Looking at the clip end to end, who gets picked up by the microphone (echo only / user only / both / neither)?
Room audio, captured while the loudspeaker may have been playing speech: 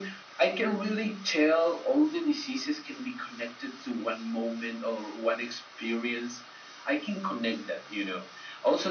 echo only